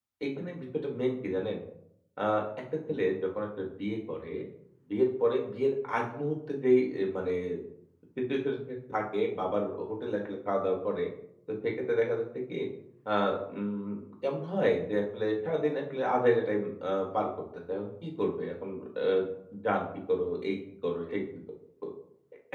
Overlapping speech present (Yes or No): No